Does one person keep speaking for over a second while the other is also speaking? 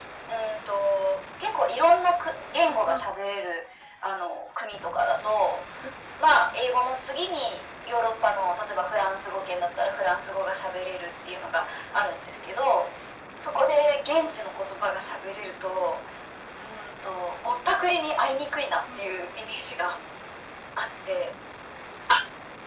No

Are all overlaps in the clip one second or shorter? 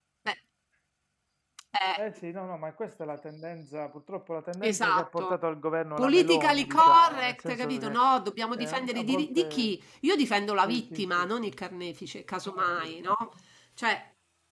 No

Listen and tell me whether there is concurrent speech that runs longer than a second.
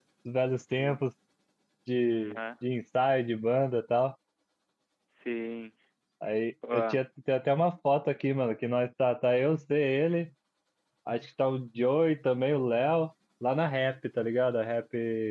No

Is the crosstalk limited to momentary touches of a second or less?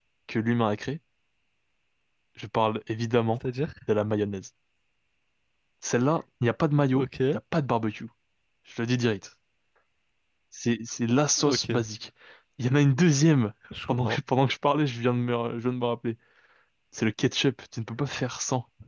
Yes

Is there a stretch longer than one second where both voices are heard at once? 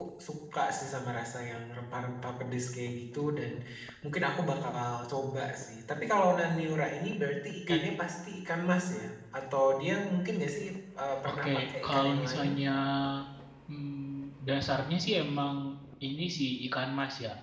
Yes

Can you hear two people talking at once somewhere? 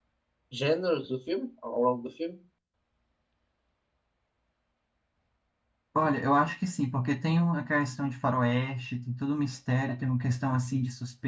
No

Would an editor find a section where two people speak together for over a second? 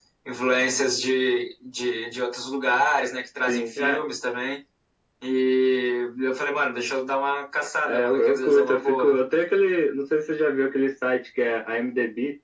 Yes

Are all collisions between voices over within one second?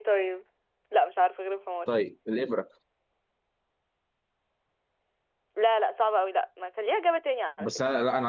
Yes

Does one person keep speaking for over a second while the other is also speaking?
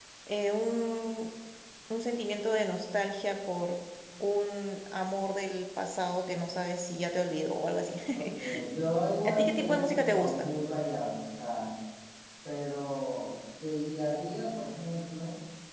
Yes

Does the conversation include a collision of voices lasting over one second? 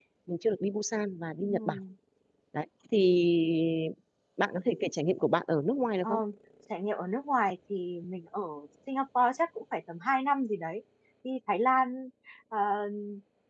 No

